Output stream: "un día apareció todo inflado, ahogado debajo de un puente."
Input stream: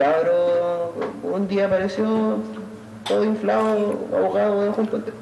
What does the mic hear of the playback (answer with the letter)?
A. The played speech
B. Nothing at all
A